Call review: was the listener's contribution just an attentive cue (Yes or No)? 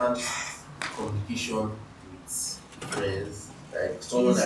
No